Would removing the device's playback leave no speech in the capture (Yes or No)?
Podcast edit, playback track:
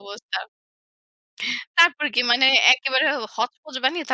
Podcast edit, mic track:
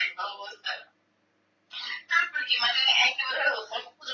Yes